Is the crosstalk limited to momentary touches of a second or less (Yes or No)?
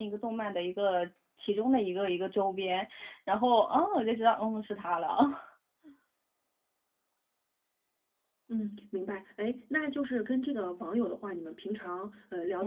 Yes